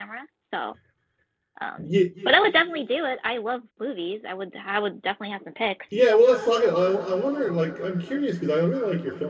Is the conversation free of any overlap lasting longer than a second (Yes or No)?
Yes